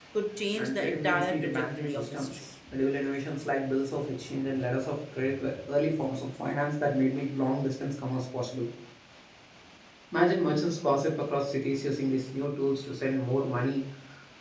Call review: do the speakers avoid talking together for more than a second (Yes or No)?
No